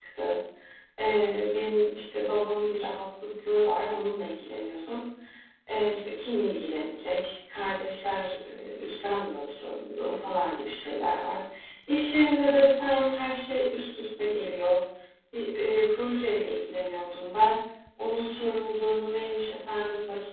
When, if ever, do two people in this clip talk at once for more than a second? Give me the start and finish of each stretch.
none

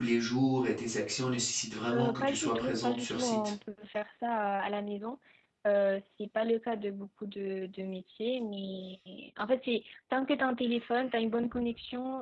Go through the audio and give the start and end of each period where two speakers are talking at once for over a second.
1.9-3.4

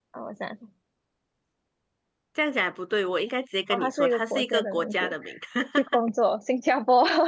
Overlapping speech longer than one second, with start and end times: 3.7-5.1

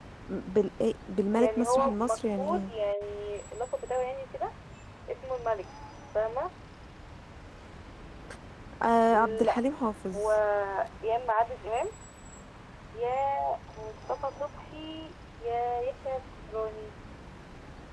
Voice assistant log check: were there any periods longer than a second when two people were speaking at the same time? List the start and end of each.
1.3-2.7

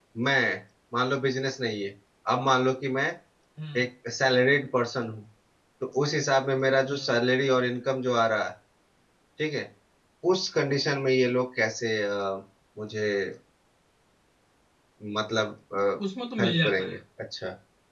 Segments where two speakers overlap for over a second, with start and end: none

